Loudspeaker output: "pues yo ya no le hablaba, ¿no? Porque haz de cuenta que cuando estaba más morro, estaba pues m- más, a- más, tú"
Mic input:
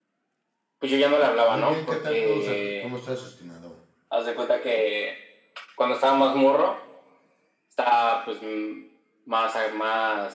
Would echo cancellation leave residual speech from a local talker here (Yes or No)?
Yes